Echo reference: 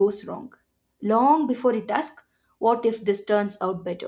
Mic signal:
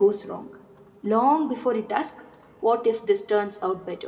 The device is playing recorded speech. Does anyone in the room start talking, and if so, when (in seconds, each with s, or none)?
none